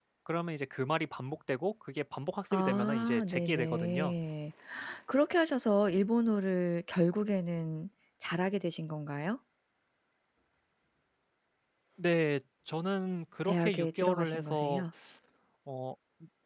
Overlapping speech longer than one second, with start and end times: 2.5-4.1, 13.4-14.8

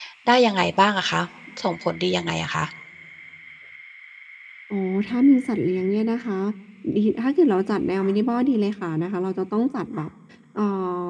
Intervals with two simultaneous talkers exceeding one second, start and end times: none

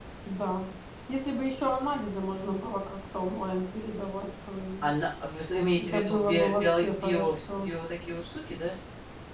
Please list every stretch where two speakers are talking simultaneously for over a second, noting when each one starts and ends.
5.8-7.7

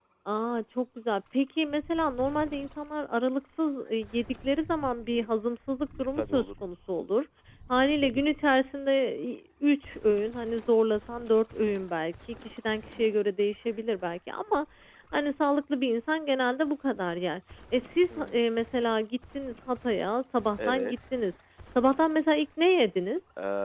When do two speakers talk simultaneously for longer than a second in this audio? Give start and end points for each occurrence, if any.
none

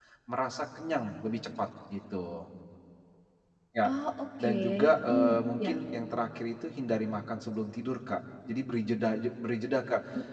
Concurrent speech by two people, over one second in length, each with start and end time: 4.4-5.7

